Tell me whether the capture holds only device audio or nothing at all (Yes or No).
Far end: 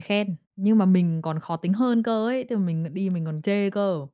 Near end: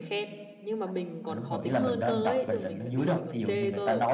No